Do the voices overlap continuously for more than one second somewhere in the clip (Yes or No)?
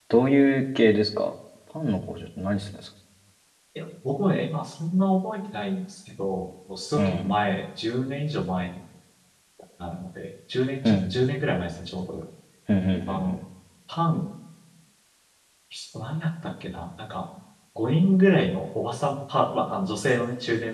No